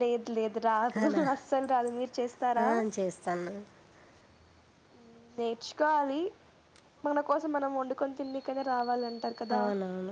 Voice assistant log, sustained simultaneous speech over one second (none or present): none